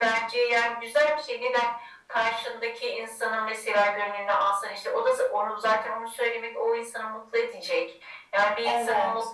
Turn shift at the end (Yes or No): No